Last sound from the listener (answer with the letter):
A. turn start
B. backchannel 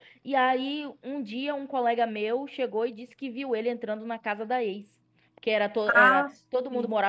B